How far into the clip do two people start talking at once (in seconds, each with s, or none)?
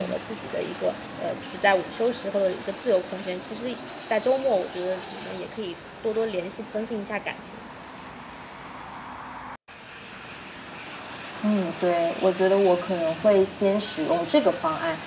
none